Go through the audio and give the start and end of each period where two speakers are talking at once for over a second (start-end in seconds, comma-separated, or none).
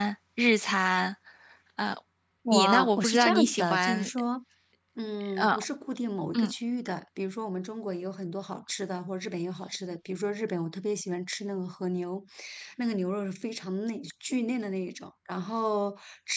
2.5-4.1